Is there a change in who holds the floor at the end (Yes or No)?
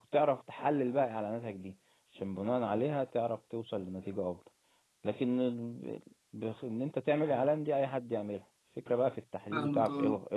No